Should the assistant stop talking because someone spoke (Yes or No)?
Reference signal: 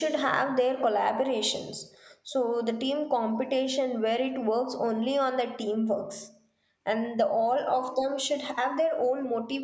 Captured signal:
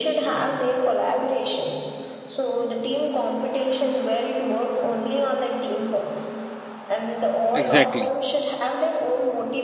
Yes